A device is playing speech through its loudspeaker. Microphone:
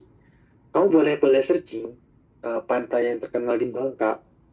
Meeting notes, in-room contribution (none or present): none